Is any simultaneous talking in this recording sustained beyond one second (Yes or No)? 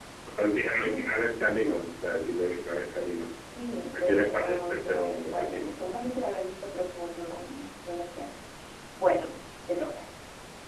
Yes